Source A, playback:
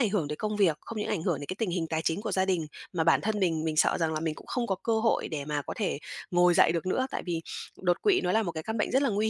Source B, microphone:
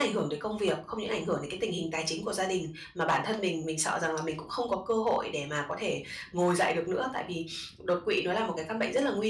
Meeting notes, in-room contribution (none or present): none